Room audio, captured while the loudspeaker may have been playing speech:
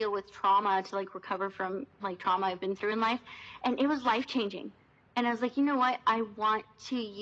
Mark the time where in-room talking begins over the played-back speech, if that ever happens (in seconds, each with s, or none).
none